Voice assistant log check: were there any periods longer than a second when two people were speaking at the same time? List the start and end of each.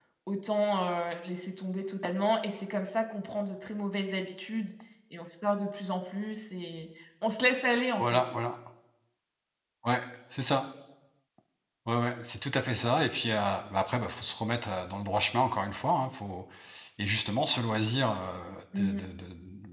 none

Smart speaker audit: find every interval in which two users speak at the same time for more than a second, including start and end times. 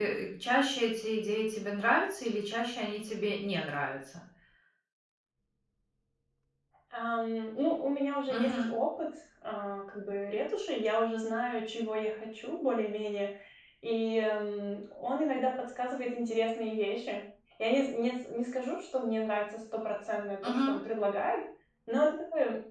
none

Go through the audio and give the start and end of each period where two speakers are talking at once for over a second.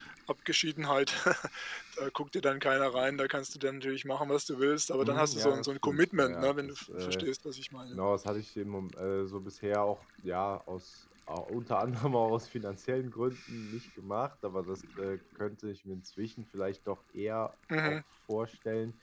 5.0-7.3

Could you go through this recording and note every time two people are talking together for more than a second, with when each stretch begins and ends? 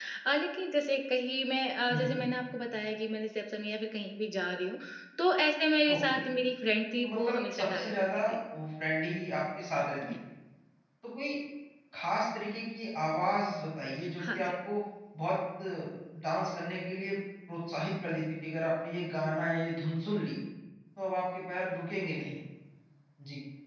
7.0-8.4

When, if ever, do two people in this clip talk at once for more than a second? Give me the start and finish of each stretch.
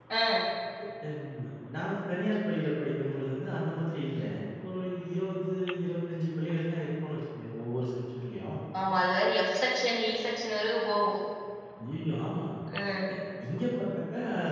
none

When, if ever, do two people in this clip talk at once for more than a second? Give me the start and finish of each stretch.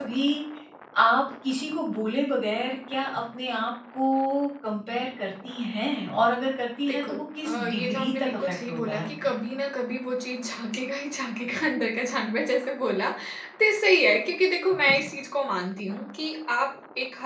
6.9-9.1

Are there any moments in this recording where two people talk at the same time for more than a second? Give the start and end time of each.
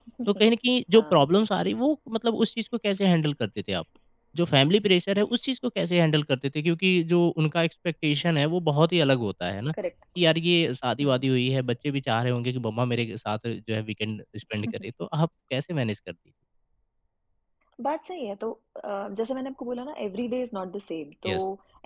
none

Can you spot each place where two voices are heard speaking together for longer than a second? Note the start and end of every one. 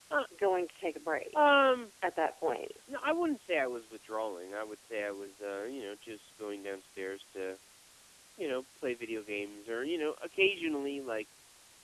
none

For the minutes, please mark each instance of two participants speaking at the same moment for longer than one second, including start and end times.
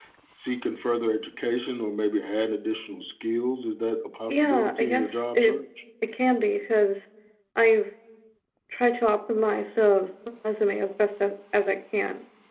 4.3-5.6

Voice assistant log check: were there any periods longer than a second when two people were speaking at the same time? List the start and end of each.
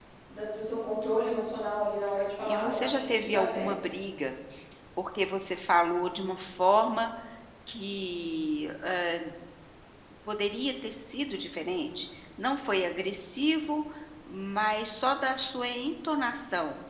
2.5-3.7

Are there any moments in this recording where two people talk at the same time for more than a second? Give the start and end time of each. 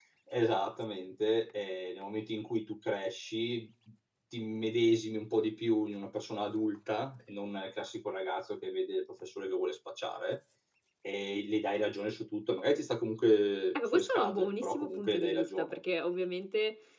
13.9-15.8

